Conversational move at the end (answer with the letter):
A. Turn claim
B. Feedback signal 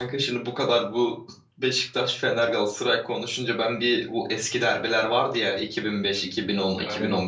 B